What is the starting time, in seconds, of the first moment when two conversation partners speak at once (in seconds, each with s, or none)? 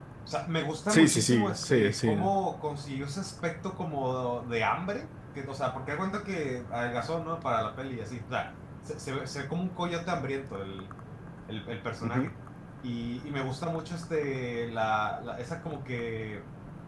0.9 s